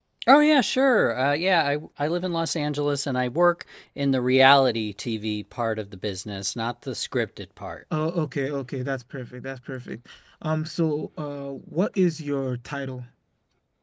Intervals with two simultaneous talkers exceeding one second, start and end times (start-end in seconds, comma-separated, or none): none